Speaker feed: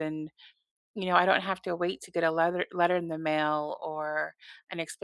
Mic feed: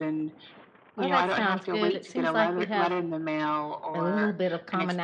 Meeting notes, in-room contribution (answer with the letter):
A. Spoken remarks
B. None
A